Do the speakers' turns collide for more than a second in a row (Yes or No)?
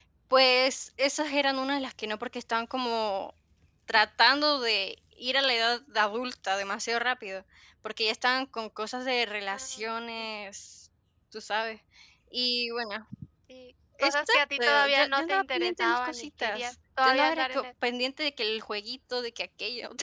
Yes